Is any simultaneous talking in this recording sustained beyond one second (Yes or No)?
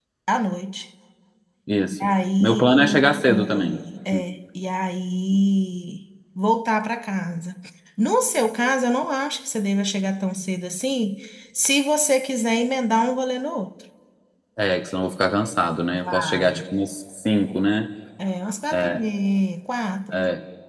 Yes